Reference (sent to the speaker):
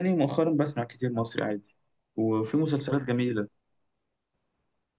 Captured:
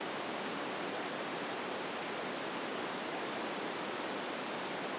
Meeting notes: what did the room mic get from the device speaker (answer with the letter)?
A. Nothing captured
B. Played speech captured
A